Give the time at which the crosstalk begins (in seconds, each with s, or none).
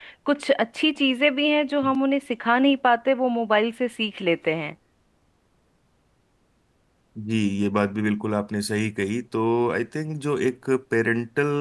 none